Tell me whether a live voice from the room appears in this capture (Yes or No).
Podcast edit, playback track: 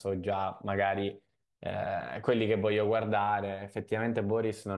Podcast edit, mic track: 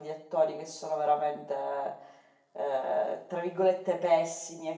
Yes